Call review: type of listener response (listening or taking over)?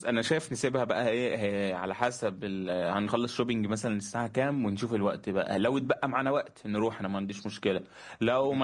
listening